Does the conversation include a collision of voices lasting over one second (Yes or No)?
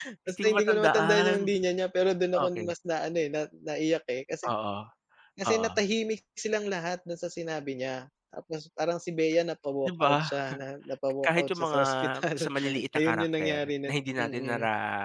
Yes